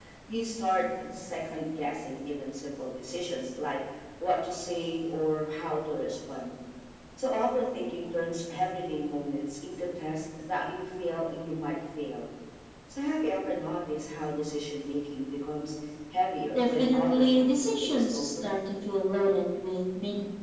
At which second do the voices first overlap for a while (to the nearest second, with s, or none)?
17 s